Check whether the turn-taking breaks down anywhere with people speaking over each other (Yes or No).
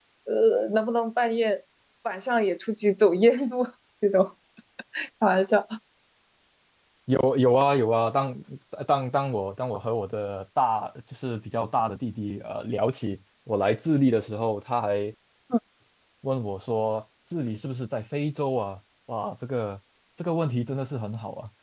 No